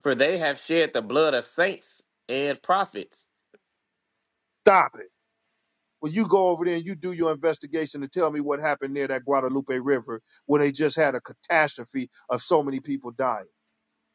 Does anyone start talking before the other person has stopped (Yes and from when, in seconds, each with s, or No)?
No